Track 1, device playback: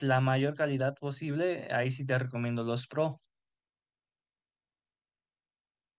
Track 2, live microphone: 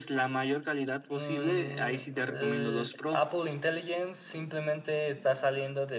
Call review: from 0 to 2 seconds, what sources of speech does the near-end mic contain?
both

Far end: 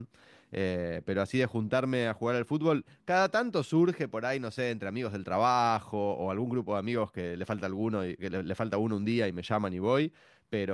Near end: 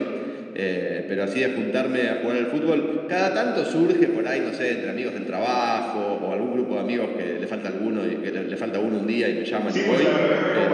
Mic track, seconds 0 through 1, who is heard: echo only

